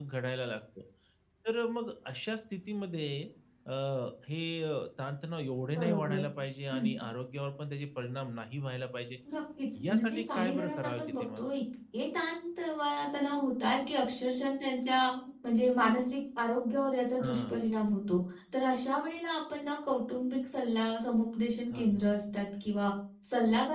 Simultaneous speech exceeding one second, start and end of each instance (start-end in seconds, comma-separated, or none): 9.9-11.4